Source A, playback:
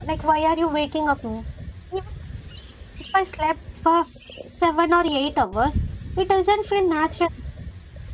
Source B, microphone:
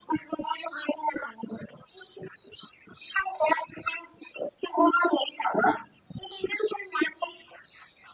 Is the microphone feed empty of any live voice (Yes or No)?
Yes